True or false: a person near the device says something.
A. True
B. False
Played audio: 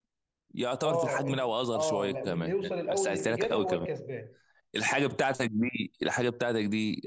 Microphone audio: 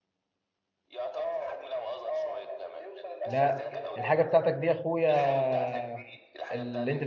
A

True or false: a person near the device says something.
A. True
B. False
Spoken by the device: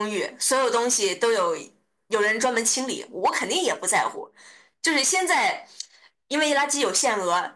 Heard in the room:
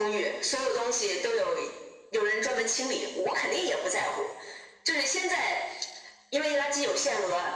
B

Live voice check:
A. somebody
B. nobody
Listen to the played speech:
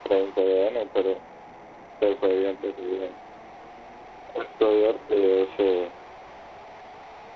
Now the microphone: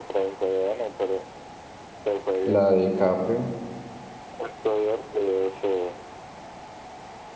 A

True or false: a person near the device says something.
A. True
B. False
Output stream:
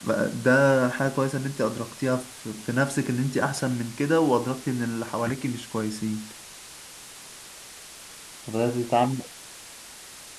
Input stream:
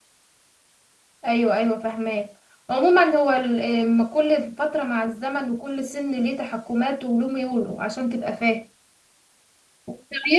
A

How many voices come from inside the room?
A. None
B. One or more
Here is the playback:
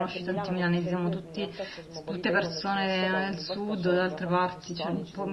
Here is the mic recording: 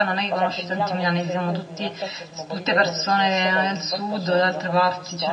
A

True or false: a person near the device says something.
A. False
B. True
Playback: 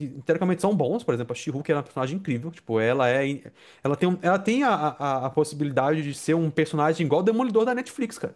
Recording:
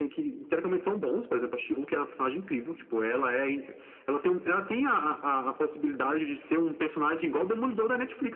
A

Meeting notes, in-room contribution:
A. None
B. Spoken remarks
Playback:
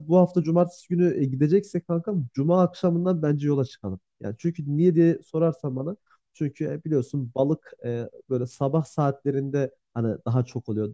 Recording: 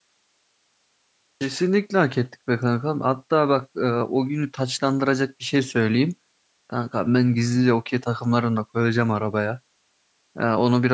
B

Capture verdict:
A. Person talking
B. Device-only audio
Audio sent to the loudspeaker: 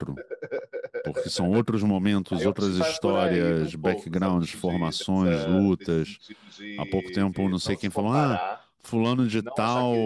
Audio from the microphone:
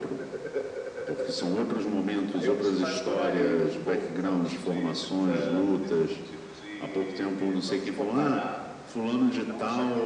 B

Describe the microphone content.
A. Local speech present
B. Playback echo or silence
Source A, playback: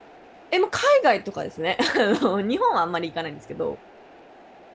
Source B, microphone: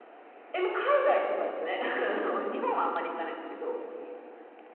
B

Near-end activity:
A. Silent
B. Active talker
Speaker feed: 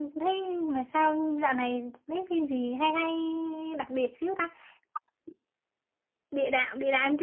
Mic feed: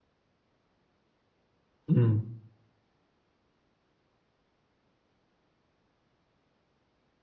B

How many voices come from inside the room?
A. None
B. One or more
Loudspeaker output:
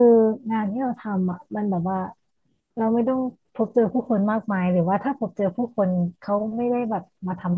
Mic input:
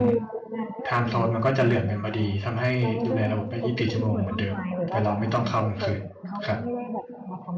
B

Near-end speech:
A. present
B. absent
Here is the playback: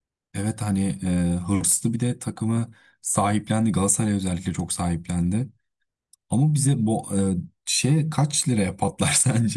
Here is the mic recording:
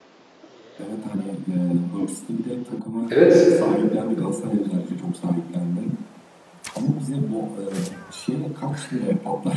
A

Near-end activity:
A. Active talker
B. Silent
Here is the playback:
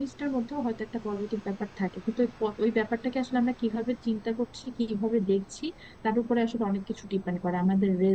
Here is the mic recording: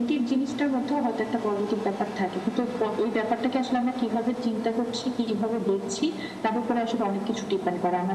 B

